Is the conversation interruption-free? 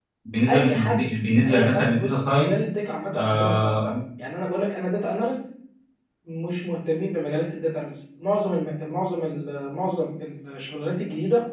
No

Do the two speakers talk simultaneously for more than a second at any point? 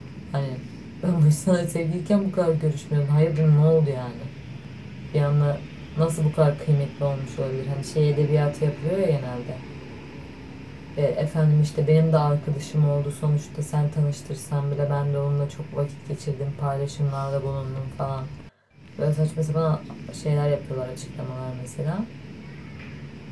No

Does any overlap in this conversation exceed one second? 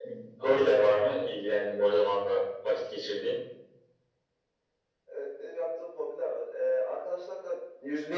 No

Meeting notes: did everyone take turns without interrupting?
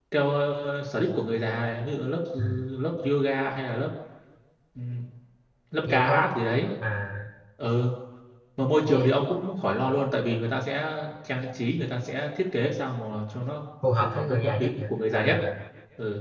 No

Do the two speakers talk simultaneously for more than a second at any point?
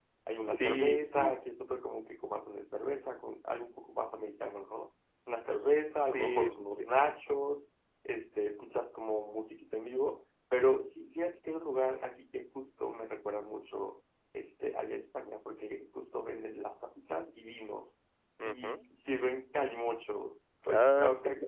Yes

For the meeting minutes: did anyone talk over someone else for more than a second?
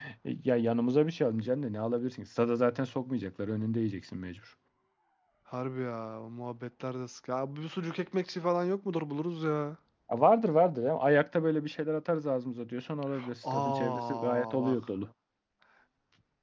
Yes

